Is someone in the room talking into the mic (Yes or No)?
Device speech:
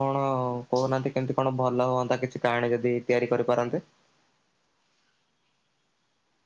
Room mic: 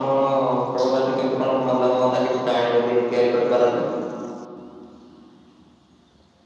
No